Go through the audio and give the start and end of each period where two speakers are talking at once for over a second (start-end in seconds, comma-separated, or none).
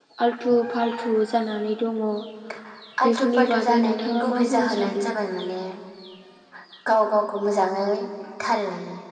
3.1-5.0